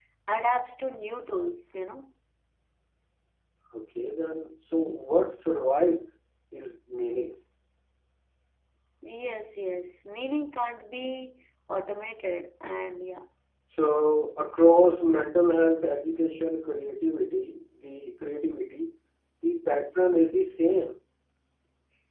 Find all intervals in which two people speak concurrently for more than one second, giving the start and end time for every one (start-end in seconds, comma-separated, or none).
none